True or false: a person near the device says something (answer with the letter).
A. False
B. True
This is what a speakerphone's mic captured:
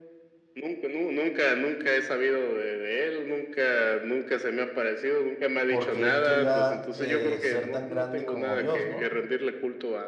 B